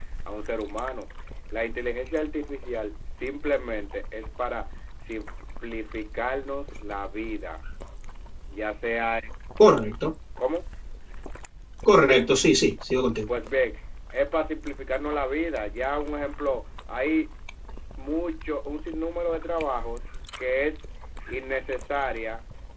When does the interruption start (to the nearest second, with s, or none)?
none